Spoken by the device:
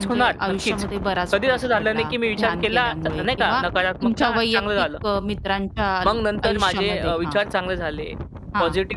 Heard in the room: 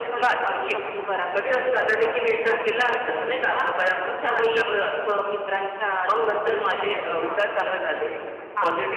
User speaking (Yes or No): No